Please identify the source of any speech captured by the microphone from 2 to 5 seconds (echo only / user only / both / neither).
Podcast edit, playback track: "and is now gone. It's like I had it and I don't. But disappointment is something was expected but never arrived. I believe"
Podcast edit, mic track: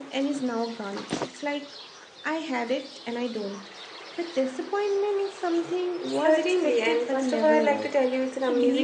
echo only